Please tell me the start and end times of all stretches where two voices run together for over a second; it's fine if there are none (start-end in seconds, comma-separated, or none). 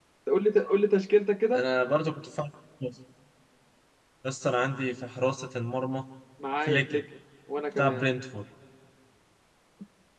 none